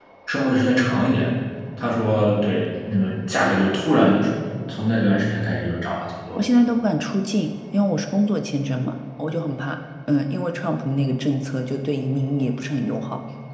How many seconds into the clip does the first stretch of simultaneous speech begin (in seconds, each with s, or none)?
none